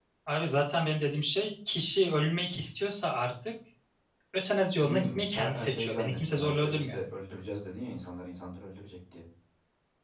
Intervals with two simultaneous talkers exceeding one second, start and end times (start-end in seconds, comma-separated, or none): 4.8-7.0